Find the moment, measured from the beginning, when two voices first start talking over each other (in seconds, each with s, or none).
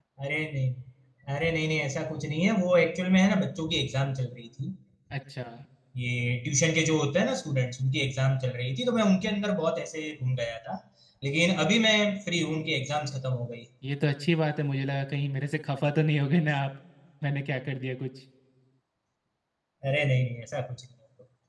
none